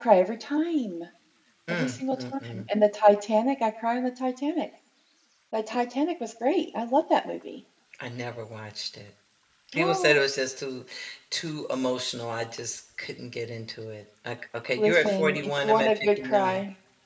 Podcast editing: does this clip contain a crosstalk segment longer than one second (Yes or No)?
Yes